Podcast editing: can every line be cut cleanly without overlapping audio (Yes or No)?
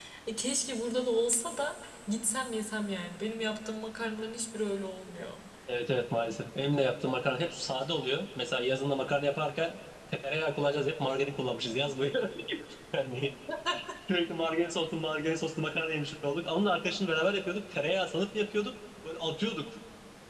Yes